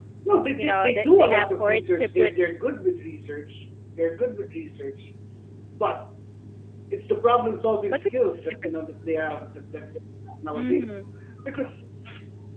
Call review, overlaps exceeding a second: present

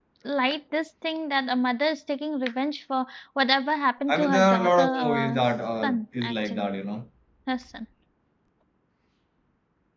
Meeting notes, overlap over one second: present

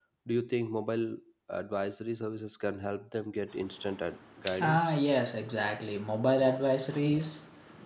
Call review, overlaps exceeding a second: none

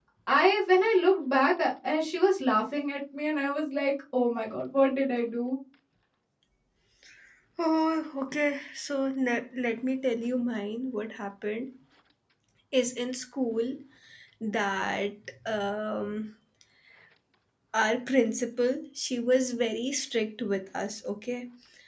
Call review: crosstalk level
none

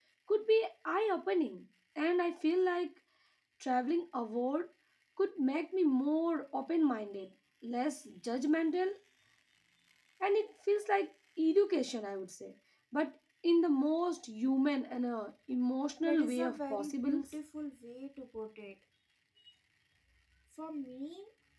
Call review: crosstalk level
present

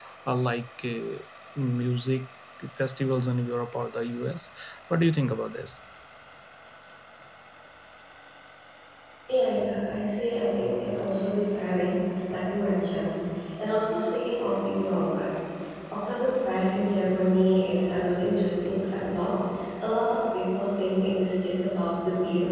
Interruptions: none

